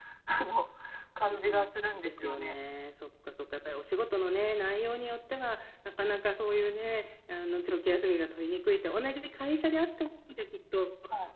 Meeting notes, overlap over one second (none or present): present